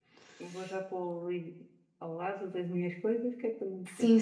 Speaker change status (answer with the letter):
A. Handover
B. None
A